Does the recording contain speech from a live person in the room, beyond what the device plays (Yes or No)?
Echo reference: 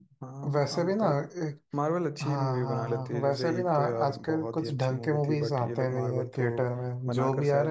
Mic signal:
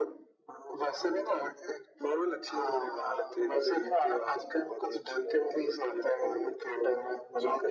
No